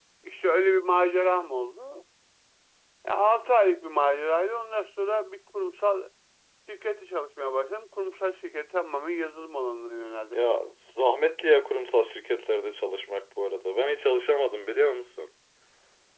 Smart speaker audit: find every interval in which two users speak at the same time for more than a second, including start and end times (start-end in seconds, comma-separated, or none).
none